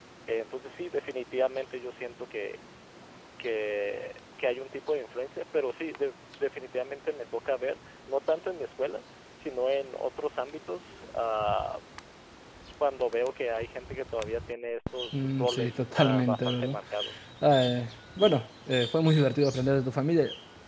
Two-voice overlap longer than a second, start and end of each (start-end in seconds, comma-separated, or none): 15.1-16.8